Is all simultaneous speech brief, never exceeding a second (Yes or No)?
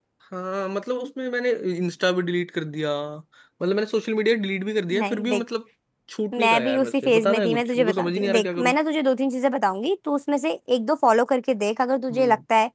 No